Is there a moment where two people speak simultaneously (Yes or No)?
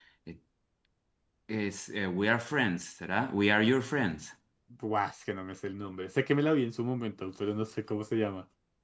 No